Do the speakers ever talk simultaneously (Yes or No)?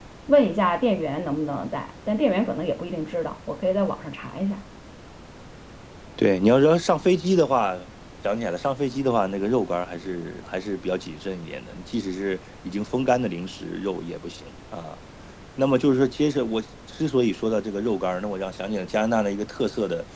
No